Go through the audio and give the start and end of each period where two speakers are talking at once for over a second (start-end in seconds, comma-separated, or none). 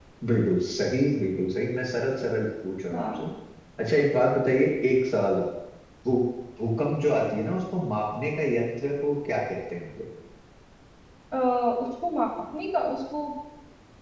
none